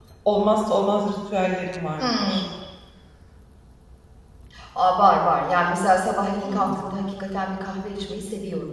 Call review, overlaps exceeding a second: none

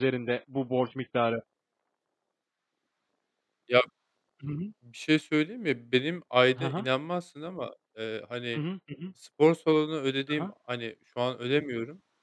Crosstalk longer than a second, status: none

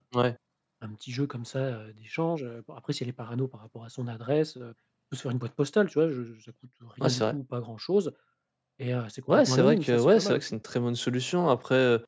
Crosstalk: present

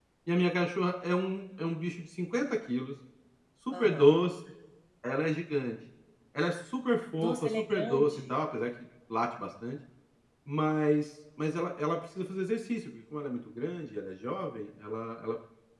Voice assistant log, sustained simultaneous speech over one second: present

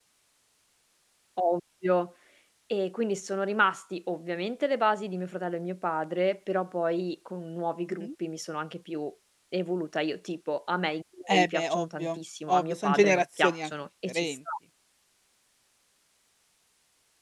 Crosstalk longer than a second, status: present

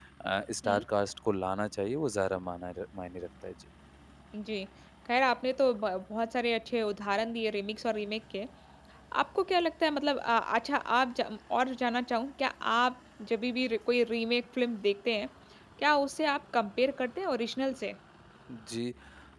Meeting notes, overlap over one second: none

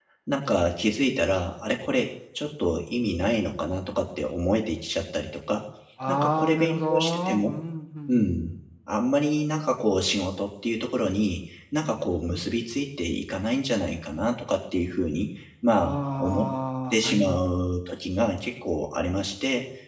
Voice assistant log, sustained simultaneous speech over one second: present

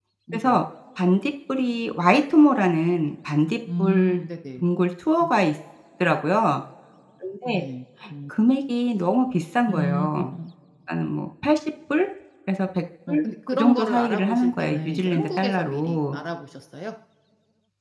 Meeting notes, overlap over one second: present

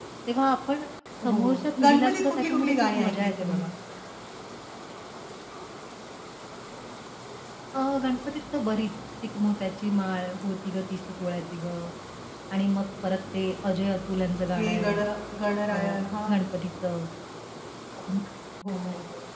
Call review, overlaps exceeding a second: present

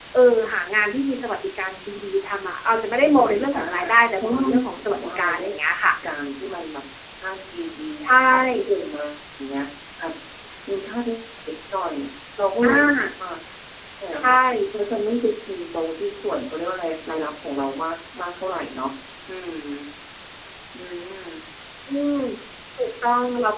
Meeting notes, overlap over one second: present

